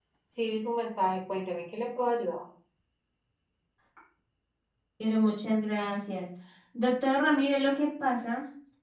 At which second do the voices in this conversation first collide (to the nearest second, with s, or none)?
none